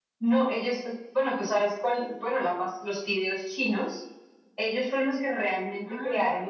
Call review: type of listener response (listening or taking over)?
listening